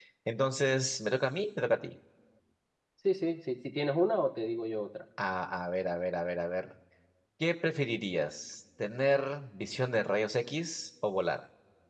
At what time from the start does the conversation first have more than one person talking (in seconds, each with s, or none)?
none